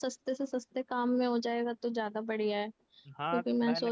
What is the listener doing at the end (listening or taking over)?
taking over